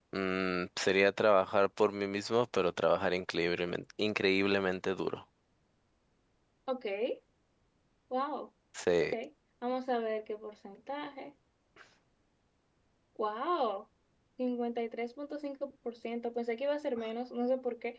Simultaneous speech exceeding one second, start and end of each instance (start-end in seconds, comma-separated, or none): none